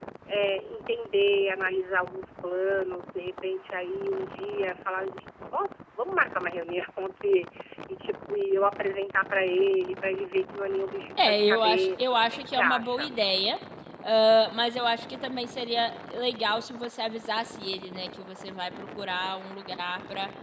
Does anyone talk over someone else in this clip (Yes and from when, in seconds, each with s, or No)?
Yes, from 11.2 s